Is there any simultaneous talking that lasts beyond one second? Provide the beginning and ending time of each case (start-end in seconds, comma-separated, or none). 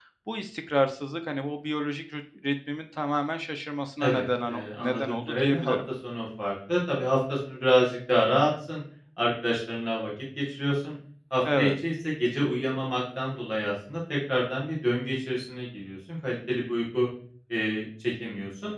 4.0-5.7